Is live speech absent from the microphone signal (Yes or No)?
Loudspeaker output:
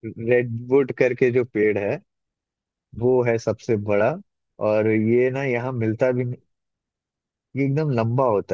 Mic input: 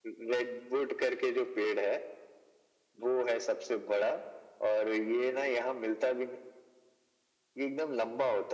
Yes